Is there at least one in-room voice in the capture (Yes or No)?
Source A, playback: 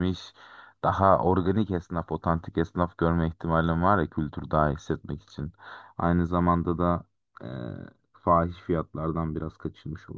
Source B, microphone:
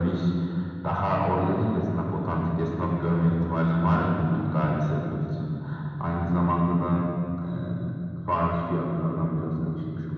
No